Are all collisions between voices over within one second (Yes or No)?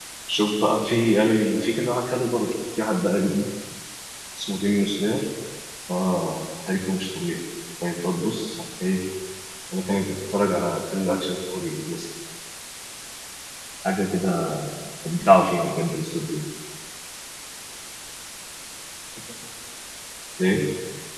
Yes